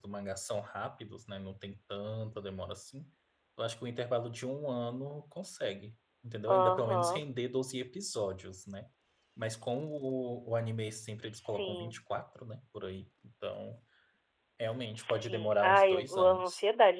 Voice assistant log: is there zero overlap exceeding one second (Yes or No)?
No